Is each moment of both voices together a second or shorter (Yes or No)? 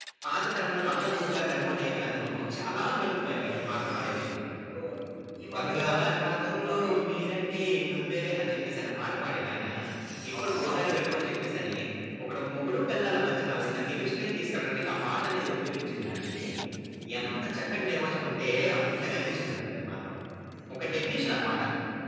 No